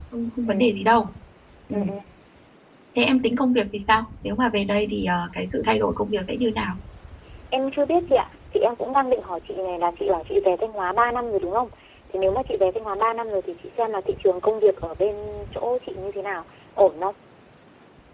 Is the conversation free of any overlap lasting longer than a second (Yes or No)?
Yes